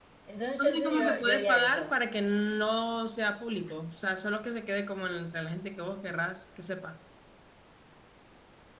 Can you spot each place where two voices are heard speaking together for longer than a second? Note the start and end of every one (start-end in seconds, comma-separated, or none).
0.6-1.9